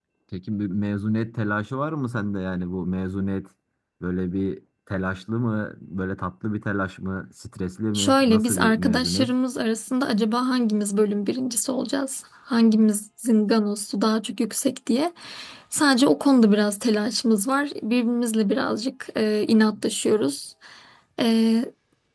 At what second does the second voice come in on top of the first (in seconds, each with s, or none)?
7.9 s